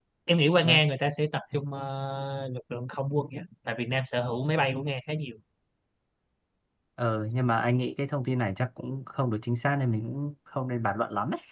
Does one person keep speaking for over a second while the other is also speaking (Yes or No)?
No